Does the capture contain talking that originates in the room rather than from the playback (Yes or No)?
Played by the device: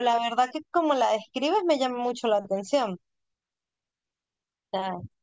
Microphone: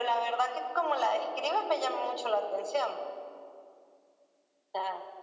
No